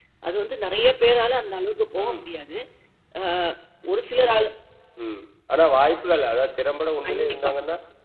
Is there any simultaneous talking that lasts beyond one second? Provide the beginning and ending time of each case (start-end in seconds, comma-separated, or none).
none